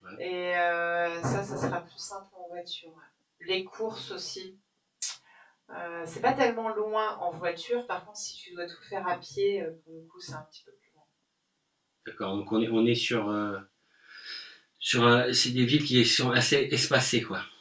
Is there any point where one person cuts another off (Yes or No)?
No